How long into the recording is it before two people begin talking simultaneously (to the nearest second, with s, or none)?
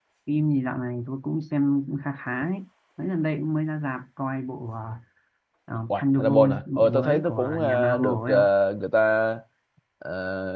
6 s